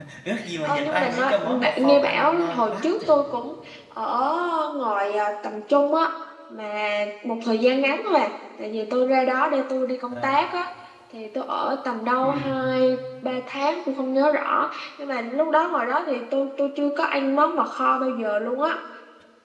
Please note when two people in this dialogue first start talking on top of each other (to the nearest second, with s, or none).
1 s